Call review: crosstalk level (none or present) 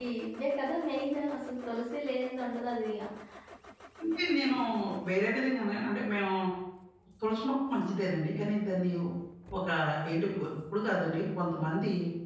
none